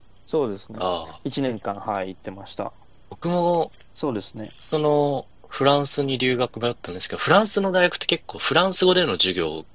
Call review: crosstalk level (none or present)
none